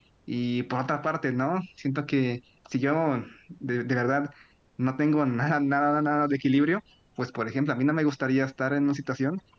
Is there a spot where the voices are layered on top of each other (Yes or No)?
No